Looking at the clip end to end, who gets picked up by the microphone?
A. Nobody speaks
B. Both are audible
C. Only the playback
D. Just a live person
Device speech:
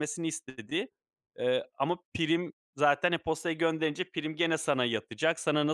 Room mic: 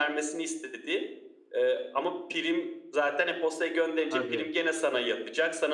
B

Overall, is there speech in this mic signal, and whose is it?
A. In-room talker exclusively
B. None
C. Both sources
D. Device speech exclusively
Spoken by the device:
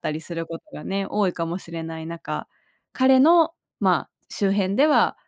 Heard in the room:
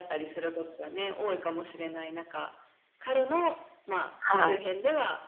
C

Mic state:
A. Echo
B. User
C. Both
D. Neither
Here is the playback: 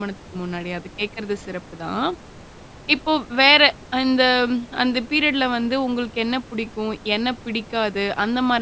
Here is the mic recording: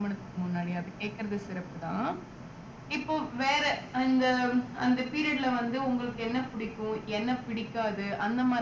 A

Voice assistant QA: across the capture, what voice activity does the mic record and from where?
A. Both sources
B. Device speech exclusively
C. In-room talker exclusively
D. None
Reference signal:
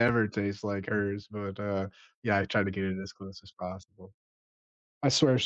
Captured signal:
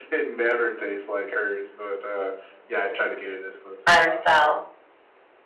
A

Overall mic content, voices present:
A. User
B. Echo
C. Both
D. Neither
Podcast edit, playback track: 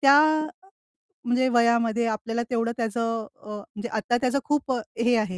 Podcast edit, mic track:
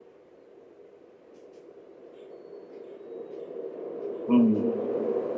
A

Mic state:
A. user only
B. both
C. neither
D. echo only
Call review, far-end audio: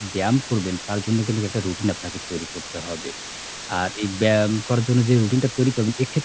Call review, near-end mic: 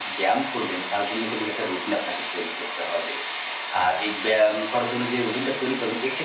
D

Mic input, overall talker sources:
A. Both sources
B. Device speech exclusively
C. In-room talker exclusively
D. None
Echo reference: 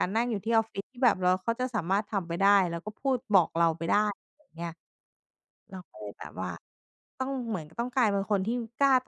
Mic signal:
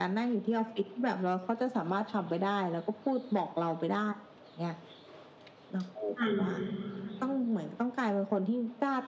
A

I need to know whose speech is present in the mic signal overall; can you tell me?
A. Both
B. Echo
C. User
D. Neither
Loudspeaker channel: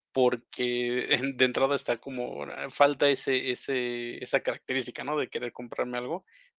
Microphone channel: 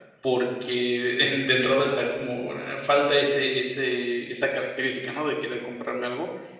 B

